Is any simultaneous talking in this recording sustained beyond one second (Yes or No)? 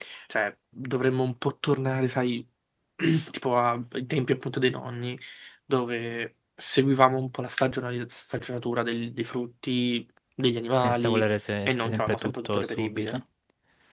Yes